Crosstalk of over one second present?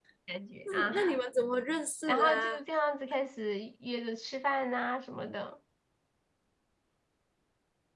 No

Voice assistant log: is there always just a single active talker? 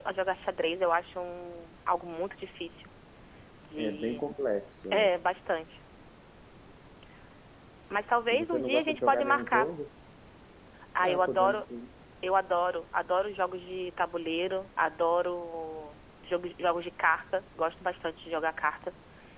No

